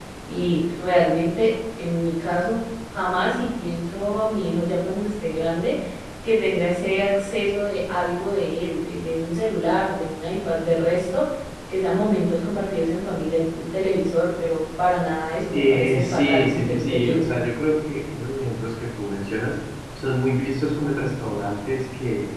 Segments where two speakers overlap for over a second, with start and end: 15.5-17.3

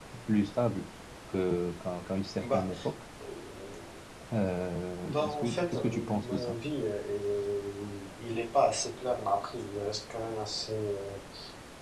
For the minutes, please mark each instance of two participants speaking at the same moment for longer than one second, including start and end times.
5.1-6.5

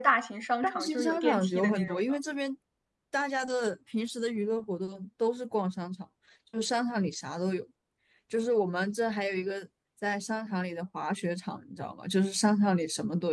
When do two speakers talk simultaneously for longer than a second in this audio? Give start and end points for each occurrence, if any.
0.6-2.1

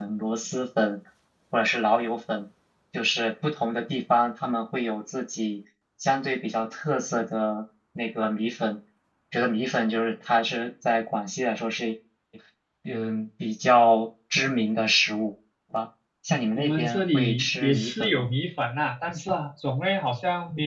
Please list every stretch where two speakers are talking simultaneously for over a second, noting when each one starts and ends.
16.6-18.3

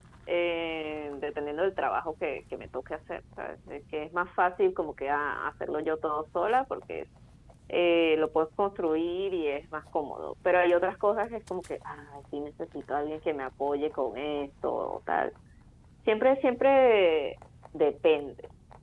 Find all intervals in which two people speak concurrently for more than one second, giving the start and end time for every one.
none

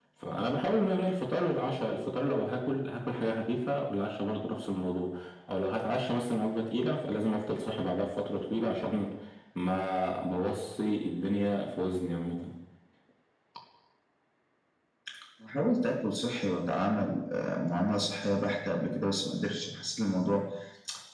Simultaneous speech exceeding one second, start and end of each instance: none

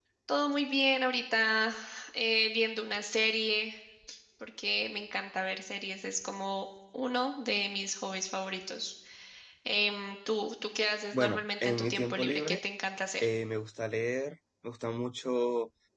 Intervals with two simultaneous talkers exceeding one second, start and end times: 11.1-12.6

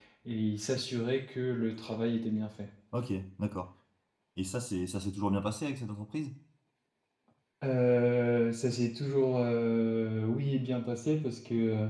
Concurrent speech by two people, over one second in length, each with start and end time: none

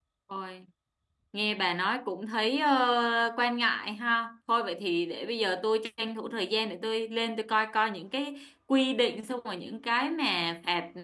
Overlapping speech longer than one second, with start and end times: none

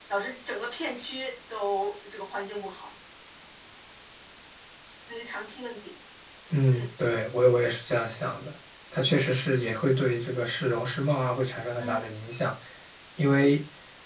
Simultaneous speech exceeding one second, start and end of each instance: none

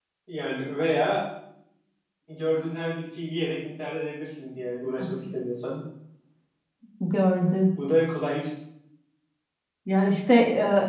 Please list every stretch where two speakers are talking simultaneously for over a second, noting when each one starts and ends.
none

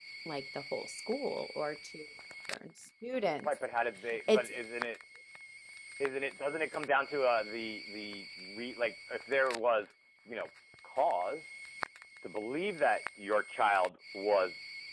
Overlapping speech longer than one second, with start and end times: none

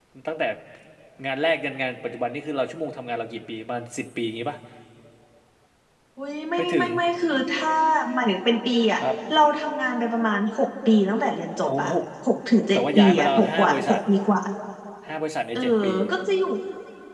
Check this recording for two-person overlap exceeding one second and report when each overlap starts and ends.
12.7-14.0

